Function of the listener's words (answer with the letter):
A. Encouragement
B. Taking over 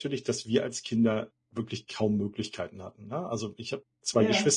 A